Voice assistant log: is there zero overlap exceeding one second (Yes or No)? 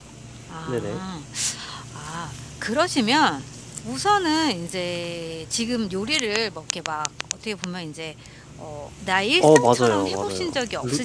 No